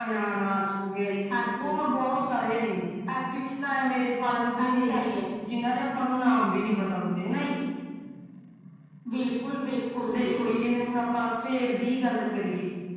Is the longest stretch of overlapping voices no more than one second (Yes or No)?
Yes